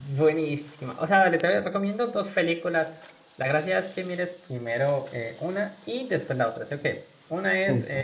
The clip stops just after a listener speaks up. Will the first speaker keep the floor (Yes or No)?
Yes